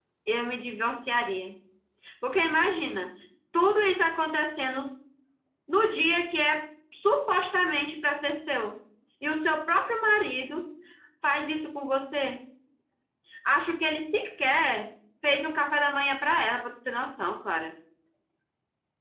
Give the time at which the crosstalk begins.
none

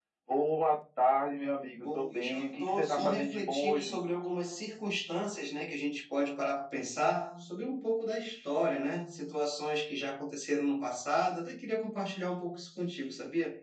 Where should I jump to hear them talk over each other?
1.8 s

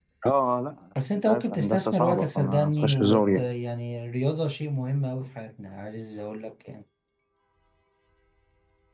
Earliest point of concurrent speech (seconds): 1.1 s

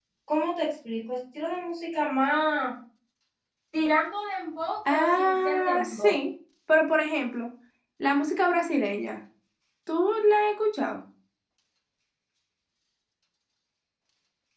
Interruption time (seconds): 4.8 s

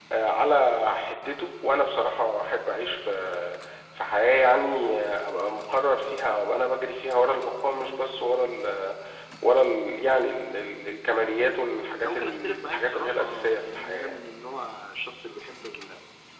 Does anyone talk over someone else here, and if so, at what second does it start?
12.0 s

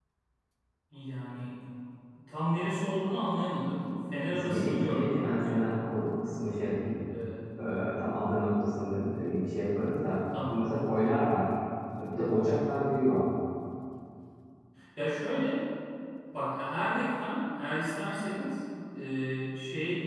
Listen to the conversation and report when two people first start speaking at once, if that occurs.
4.3 s

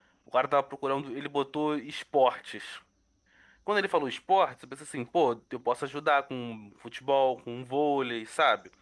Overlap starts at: none

